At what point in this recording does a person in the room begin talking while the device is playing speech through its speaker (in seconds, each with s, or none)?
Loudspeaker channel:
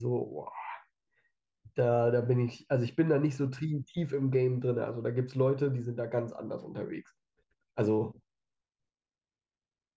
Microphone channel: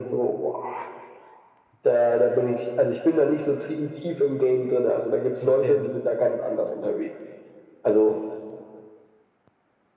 5.4 s